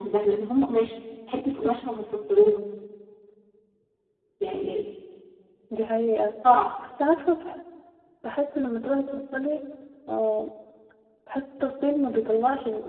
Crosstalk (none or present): none